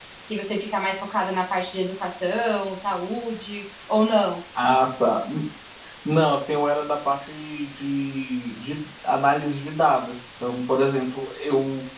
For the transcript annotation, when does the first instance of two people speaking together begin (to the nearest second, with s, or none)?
none